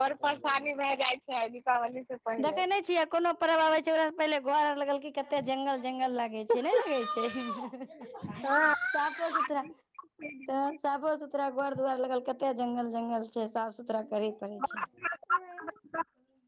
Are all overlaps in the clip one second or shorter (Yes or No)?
Yes